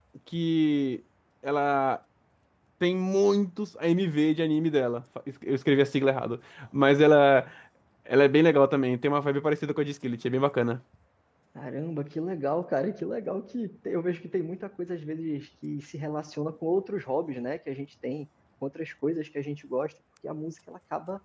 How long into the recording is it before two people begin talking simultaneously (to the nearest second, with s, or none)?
none